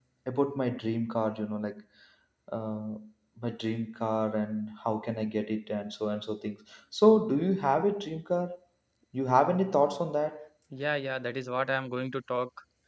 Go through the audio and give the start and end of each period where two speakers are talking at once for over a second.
none

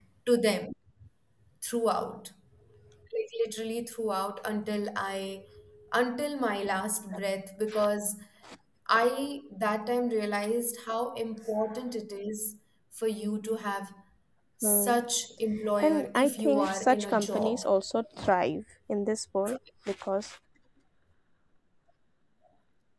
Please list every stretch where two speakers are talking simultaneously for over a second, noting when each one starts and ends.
15.8-17.6

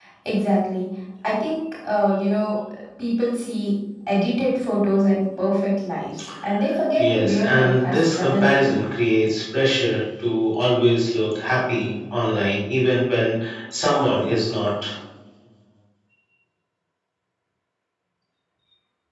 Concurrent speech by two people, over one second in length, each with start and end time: 7.0-8.7

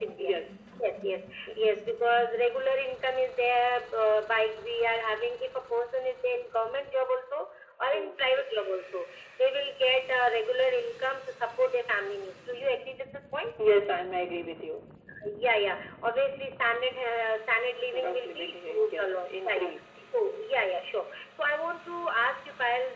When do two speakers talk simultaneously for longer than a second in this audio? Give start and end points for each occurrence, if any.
17.9-19.7

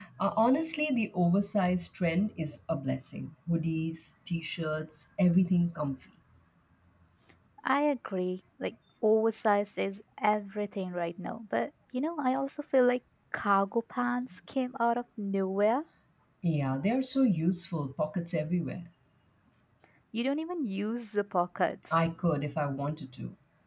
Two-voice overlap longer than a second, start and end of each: none

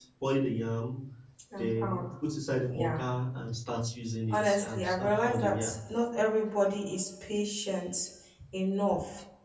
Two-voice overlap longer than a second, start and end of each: 4.3-5.7

